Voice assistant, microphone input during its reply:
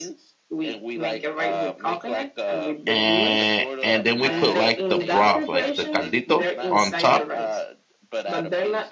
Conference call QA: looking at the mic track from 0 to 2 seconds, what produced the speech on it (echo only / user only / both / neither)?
echo only